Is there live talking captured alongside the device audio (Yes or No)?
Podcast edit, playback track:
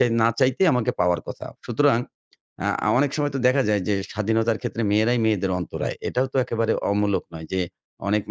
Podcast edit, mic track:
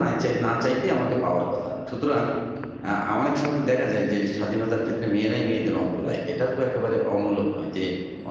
No